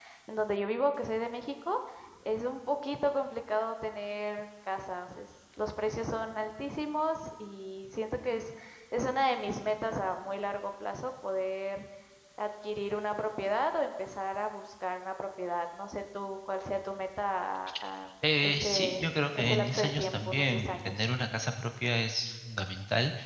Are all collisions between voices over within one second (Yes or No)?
No